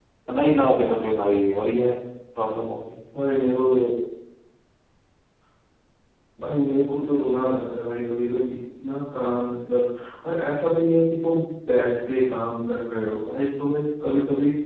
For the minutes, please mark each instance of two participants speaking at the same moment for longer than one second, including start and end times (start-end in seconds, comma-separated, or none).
none